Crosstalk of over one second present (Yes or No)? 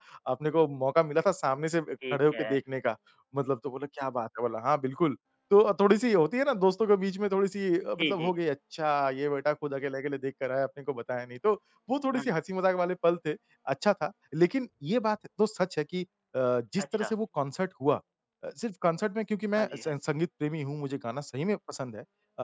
No